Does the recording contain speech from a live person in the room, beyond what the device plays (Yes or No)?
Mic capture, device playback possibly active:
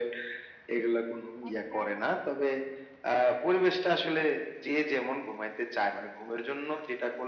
Yes